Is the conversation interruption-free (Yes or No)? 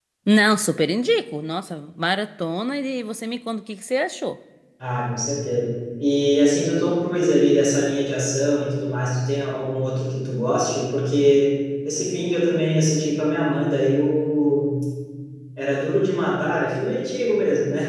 Yes